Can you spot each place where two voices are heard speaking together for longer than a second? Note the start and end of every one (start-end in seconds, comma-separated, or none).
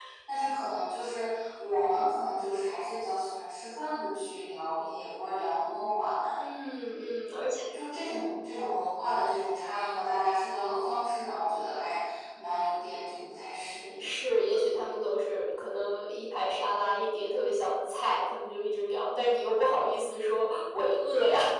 none